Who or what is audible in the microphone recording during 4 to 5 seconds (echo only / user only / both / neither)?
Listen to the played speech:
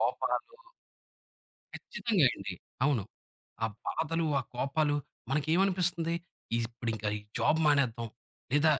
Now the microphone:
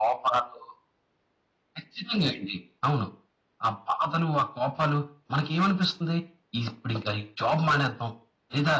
echo only